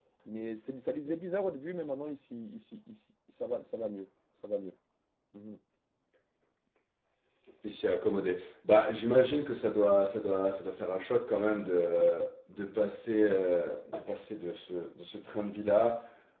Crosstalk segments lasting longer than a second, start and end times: none

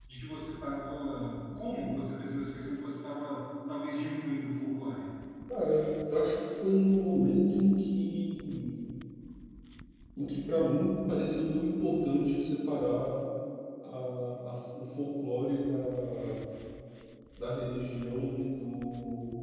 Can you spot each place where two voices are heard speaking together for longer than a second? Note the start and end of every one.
none

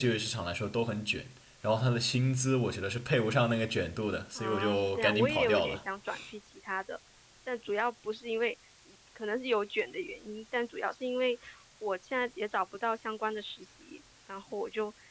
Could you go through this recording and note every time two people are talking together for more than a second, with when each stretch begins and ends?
4.3-5.8

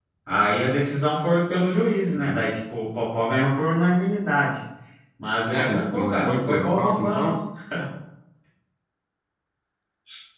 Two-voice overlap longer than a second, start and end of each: 5.5-7.4

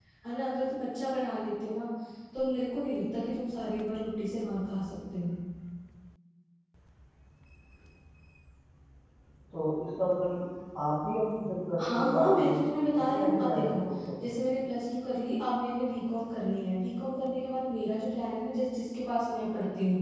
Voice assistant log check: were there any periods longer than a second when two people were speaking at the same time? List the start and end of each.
11.8-13.8

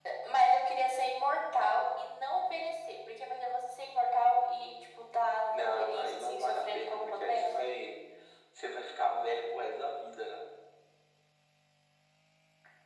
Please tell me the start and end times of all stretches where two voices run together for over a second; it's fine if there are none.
5.5-7.5

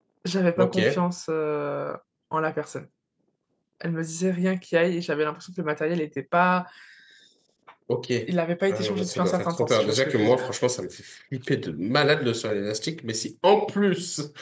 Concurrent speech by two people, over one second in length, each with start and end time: 8.7-10.5

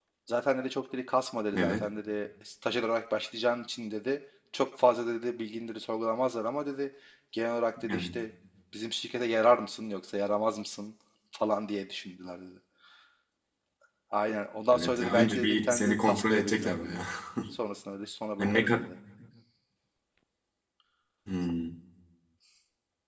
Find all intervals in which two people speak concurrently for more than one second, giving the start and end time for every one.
14.7-17.1

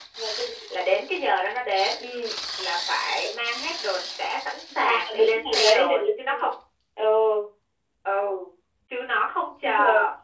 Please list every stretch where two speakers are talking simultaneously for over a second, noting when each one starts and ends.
4.8-6.3

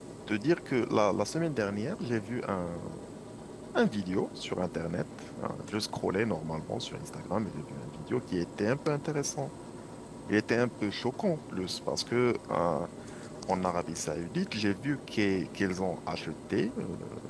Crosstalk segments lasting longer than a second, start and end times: none

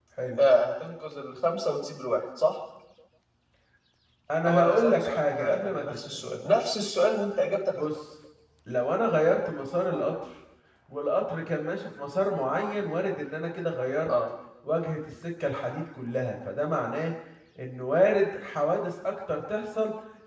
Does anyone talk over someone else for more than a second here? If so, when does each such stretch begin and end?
4.5-6.2

